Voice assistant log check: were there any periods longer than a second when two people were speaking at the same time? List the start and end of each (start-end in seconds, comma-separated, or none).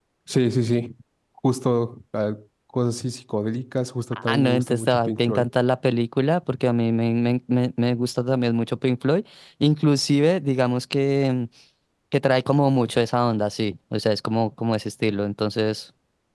4.1-5.5